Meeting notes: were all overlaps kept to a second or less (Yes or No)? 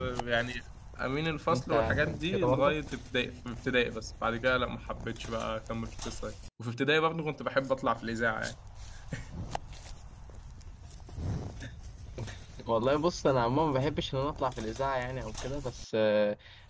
No